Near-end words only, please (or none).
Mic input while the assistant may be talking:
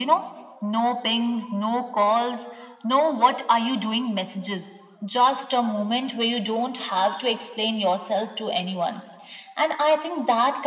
none